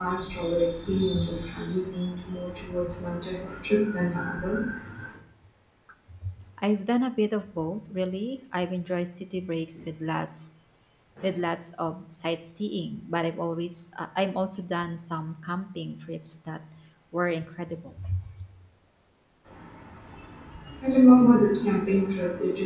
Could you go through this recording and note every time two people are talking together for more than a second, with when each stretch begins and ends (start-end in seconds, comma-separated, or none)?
none